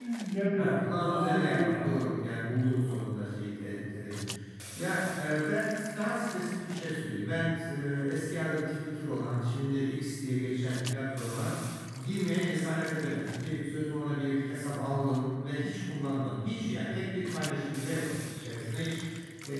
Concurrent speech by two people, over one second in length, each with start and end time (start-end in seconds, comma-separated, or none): 0.6-2.0